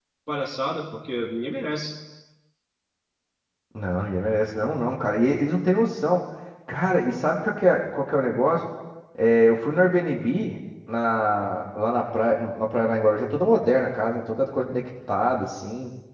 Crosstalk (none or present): none